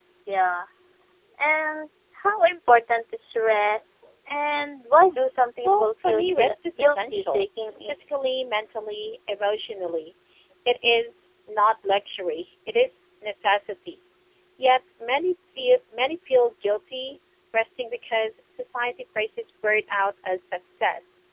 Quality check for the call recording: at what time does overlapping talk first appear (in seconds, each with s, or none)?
5.6 s